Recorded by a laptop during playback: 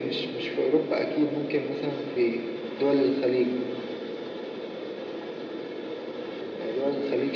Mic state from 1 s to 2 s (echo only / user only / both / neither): echo only